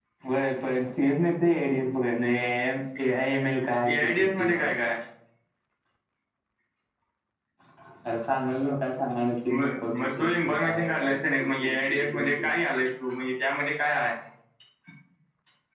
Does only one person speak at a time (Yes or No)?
No